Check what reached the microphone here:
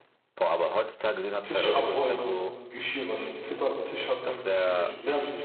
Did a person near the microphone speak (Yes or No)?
Yes